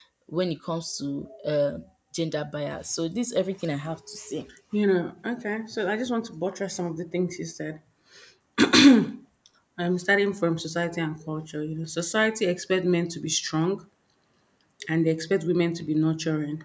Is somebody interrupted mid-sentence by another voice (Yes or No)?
No